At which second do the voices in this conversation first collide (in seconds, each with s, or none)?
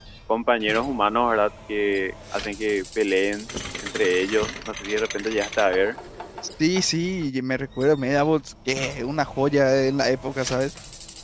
none